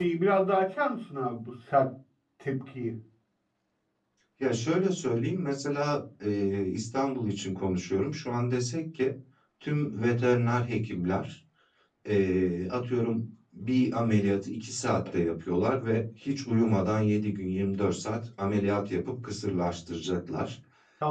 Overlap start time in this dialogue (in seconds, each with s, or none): none